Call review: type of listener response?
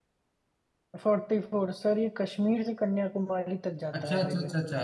taking over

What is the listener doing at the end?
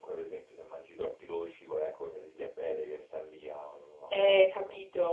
taking over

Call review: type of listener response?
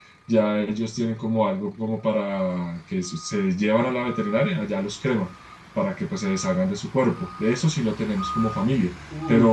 listening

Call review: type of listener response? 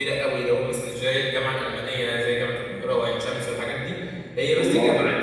listening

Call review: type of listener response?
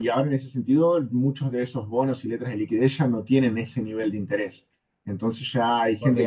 taking over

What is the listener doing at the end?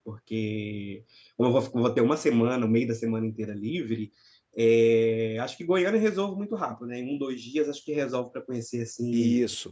listening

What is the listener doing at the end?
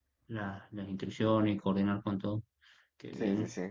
taking over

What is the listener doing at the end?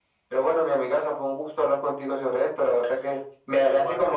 listening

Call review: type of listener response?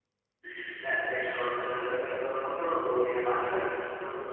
listening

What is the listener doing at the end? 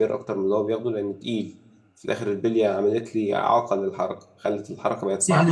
taking over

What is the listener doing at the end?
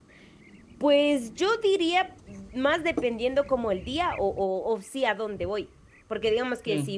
listening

